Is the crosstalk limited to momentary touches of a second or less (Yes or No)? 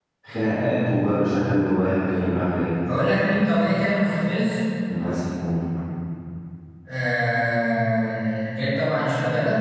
Yes